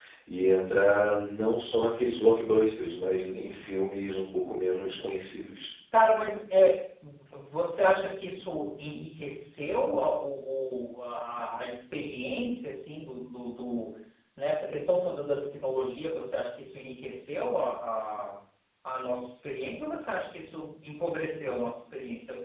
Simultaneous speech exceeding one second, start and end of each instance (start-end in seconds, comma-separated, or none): none